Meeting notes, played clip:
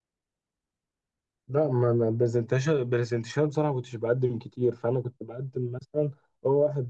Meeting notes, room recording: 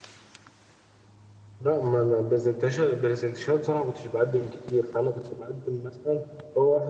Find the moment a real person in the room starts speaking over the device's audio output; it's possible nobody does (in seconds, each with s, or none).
none